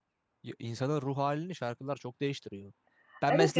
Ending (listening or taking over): taking over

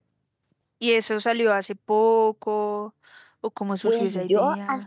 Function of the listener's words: taking over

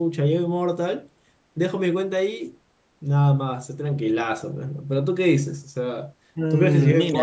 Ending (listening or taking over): taking over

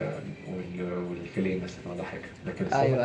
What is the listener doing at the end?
listening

